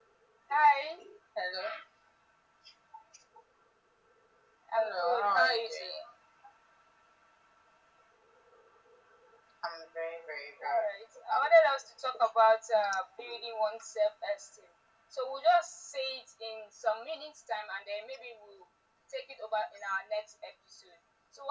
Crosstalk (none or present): present